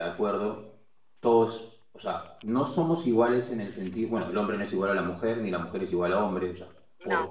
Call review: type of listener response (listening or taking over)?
listening